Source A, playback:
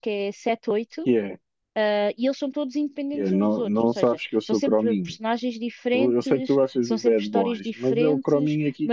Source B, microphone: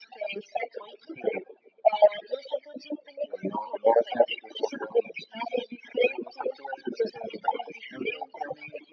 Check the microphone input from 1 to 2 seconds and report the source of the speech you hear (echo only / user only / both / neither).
echo only